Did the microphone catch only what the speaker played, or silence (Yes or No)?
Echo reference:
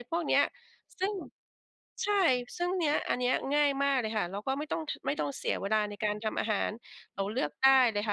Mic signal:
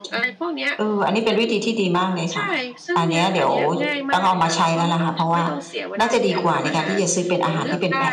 No